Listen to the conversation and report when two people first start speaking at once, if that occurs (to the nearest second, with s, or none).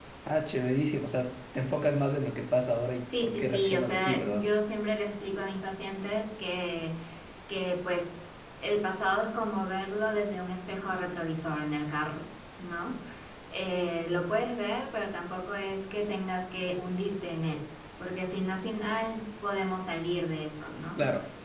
3 s